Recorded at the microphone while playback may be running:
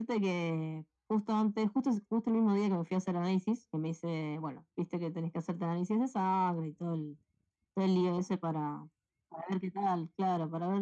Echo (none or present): present